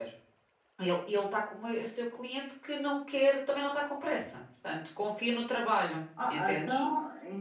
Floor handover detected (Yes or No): Yes